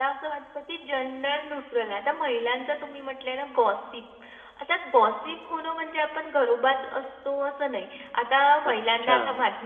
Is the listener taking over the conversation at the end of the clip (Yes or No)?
No